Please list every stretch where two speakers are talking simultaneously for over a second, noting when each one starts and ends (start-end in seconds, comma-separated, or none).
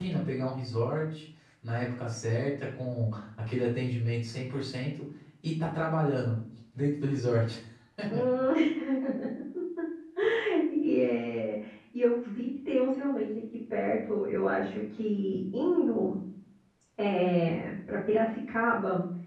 none